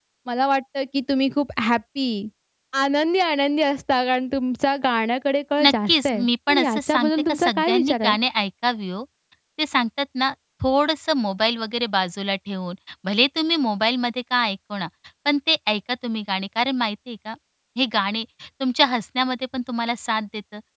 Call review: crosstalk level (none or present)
present